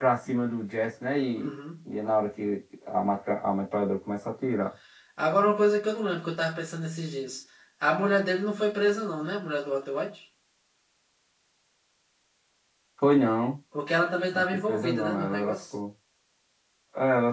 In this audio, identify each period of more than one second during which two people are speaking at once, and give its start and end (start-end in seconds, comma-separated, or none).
14.3-15.6